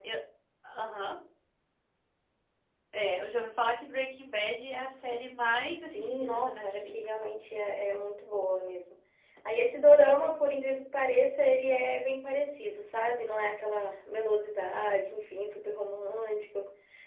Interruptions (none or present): present